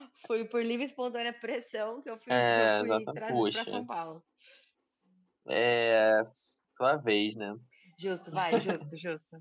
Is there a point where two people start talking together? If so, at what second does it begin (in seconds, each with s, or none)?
2.3 s